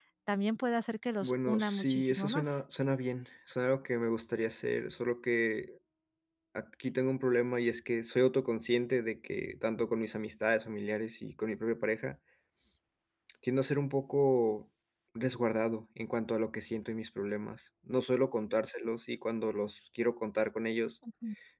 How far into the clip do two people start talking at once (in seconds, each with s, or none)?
1.2 s